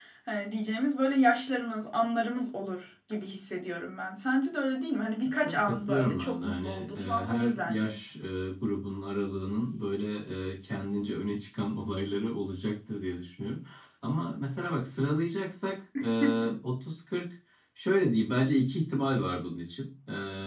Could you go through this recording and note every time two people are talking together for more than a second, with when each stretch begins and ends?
5.4-7.9

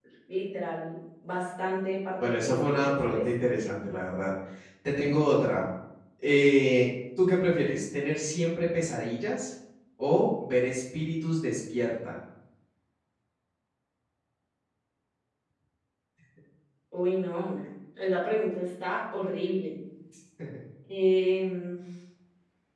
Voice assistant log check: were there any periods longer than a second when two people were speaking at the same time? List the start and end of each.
2.2-3.5

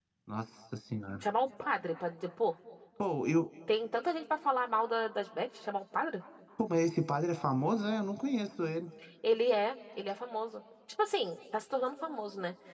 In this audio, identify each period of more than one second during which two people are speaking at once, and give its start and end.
none

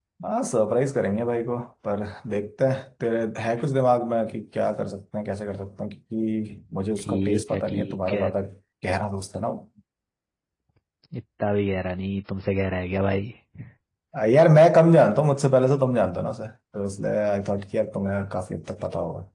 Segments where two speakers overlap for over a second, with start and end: 7.0-8.3

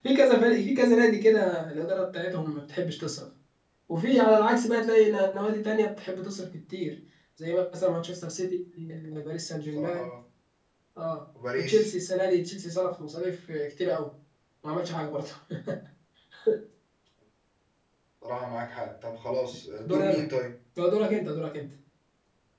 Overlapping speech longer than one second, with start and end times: none

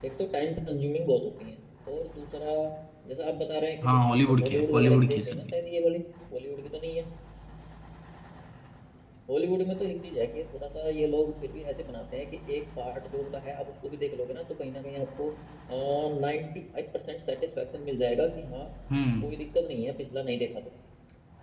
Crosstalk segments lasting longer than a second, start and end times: 3.8-5.4

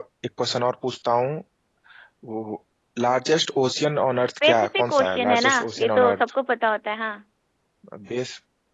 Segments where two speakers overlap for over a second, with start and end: 4.4-6.2

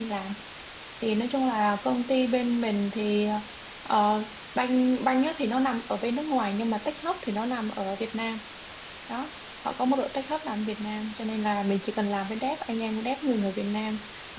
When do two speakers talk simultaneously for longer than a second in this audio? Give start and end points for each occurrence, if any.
none

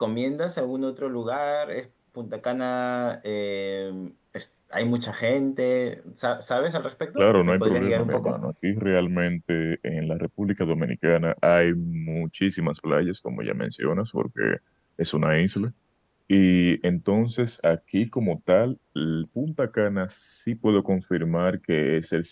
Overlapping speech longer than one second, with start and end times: 7.2-8.4

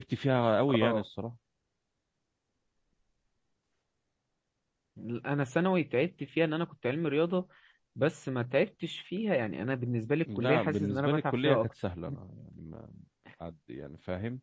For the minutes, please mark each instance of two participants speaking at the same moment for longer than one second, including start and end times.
10.4-11.7

